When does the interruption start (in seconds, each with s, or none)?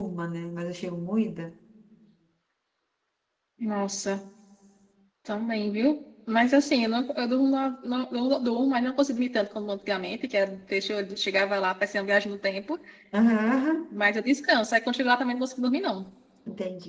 none